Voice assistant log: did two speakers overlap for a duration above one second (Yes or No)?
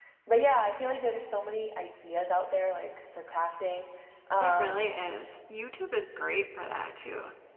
No